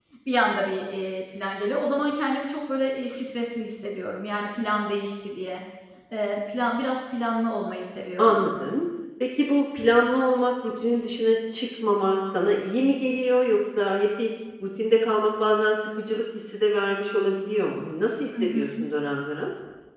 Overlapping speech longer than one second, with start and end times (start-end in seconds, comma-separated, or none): none